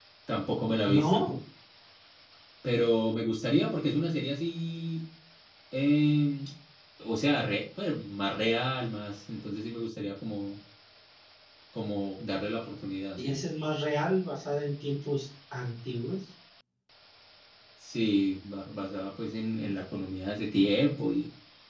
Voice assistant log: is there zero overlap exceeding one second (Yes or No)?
Yes